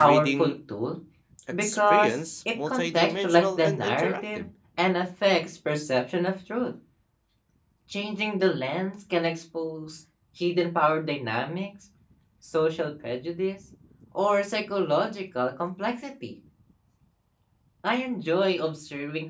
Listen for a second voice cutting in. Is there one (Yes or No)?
Yes